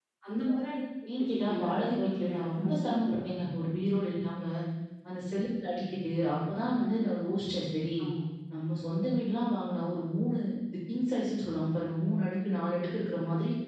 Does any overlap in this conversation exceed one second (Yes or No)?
Yes